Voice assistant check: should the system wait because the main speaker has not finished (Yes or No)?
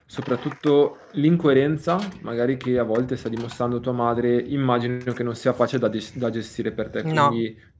Yes